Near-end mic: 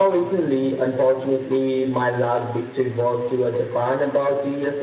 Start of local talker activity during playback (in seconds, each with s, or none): none